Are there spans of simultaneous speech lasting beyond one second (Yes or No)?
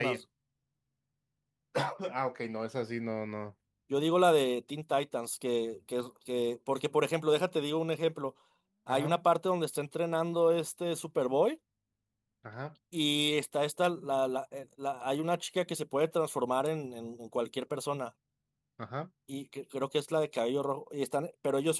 No